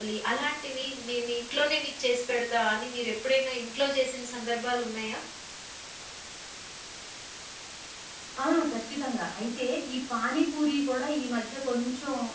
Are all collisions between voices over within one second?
Yes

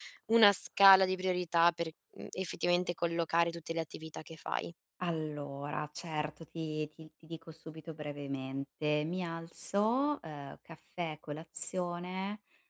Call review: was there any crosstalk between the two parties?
No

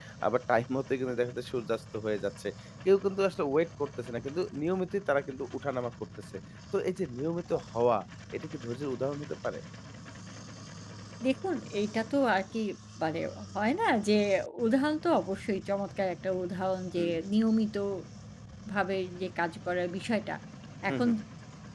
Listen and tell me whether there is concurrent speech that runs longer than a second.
No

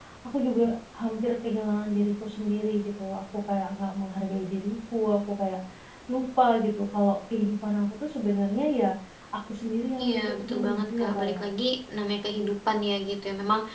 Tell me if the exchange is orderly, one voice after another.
No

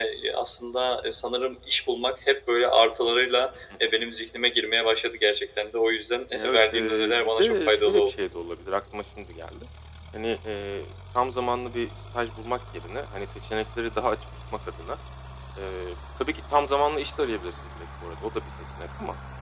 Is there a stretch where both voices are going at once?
Yes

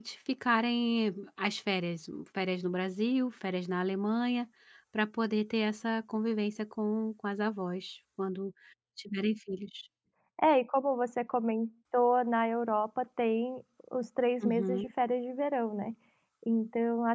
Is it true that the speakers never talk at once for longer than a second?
Yes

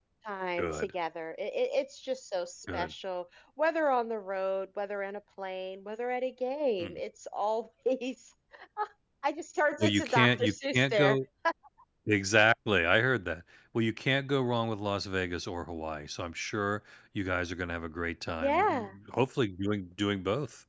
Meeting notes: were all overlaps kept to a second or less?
No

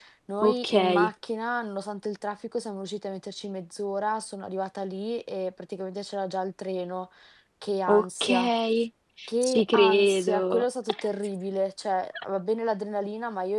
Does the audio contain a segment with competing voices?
Yes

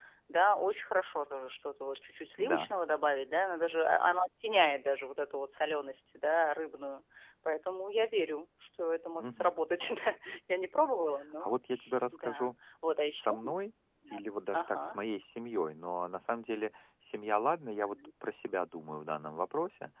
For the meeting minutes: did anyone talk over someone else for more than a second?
No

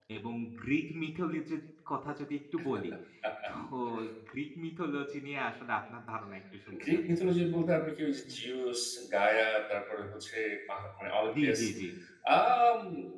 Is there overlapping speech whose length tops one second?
No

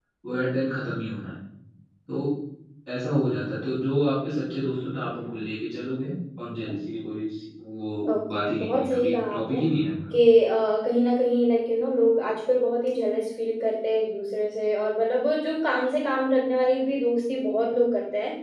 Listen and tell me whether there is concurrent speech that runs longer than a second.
Yes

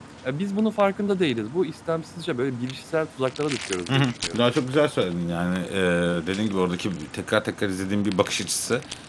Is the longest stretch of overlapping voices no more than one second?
Yes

